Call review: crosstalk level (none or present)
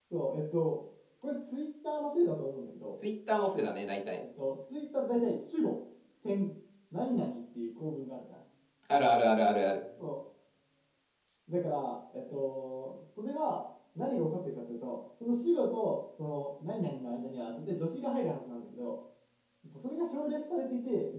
none